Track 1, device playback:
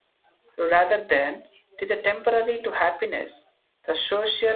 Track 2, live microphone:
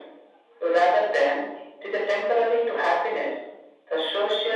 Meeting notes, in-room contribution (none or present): none